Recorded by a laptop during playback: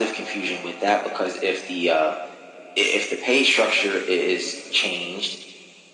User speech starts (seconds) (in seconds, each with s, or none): none